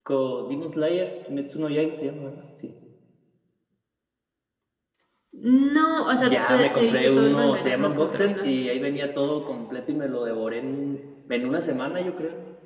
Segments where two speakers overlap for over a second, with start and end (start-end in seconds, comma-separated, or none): 6.2-8.5